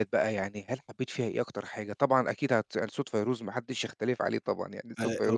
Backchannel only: Yes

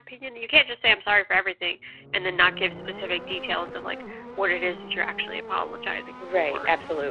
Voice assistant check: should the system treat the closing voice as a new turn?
Yes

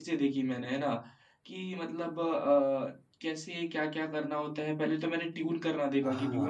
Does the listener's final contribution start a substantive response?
Yes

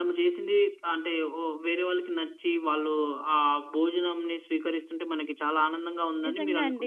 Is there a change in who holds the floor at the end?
Yes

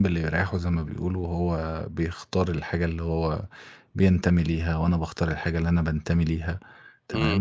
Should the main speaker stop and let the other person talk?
No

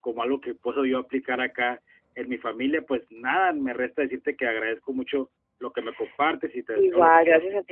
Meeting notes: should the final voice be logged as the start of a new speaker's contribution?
Yes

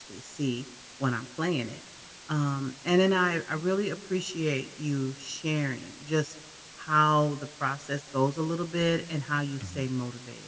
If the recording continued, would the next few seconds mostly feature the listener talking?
No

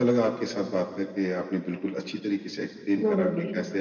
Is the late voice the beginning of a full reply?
No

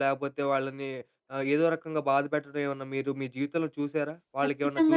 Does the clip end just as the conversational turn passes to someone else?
Yes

